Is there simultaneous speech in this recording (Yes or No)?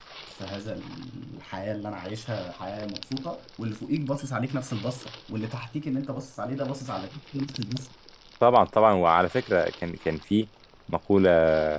No